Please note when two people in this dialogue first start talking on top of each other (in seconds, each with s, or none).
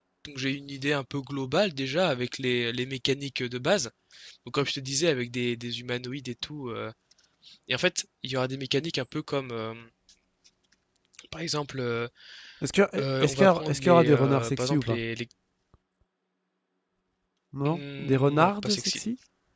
13.2 s